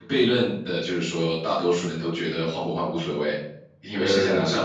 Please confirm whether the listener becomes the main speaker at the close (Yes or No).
No